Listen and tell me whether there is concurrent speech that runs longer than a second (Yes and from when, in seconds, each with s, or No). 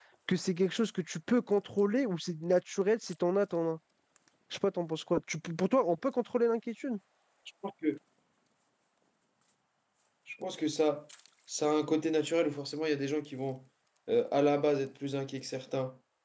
No